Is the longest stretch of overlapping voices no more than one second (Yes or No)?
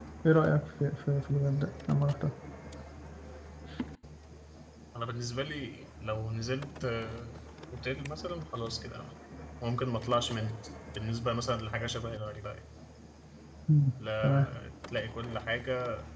Yes